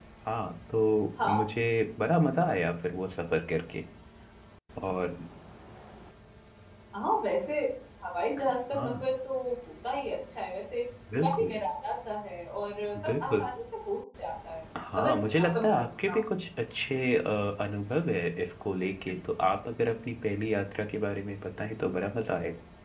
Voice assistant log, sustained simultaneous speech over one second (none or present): present